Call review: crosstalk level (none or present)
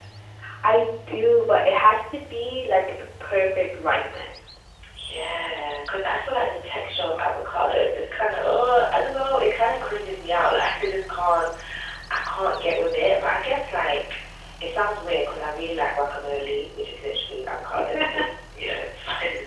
none